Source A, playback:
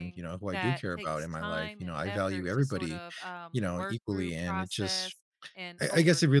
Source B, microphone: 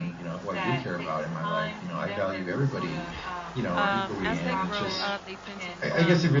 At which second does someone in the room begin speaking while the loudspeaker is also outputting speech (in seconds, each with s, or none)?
3.7 s